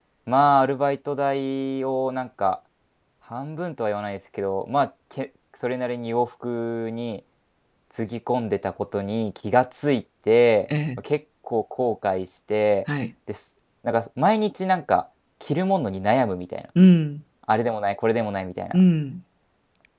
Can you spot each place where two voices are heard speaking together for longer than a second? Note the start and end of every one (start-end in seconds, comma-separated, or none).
none